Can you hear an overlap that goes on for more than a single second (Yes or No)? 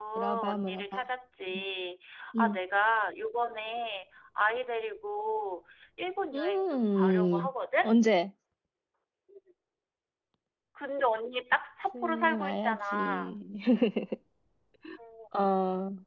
Yes